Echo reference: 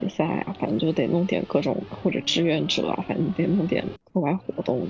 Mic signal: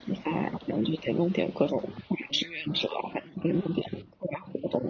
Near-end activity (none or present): none